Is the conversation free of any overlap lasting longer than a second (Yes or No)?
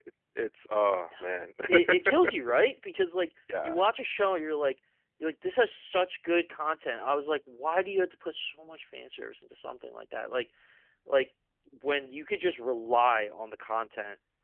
Yes